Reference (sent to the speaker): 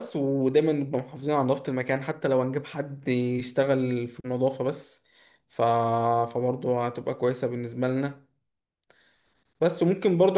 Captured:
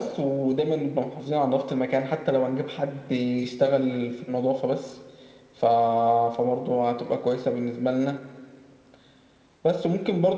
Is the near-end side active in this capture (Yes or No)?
No